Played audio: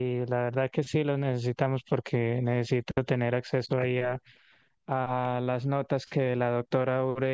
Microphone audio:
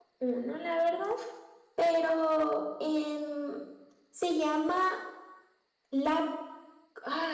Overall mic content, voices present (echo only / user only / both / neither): user only